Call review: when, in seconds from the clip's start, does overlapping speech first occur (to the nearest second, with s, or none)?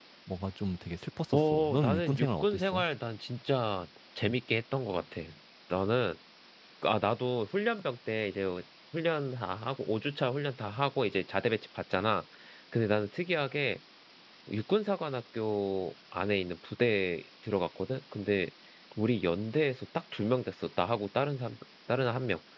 1 s